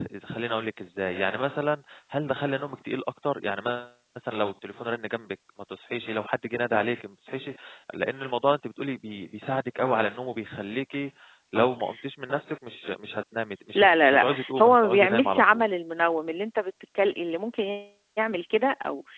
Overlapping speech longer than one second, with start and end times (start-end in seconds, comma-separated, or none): 13.8-15.7